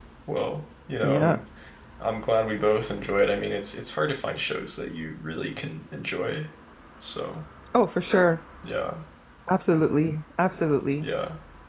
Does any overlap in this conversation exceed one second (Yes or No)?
No